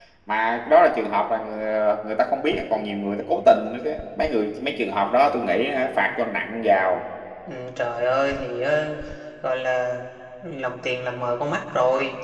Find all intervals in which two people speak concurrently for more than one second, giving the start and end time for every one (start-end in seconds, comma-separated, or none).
none